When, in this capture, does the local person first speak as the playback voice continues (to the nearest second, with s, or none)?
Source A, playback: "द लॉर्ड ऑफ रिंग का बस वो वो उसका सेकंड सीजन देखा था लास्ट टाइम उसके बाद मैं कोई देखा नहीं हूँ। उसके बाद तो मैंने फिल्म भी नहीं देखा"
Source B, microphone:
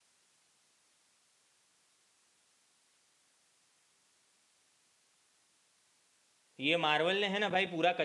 7 s